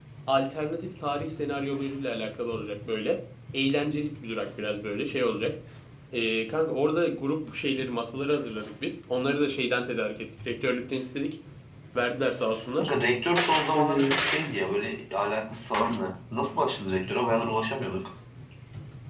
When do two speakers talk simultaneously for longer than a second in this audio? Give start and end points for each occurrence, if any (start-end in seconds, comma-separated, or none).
none